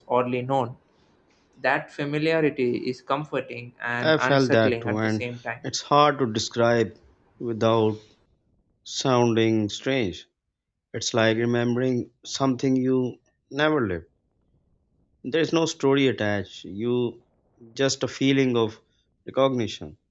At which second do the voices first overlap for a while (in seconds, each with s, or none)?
4.0 s